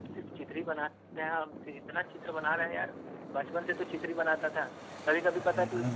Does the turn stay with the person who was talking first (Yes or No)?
Yes